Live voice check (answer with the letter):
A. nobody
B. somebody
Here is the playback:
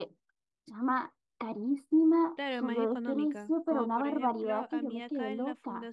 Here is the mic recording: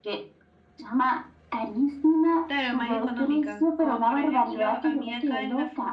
A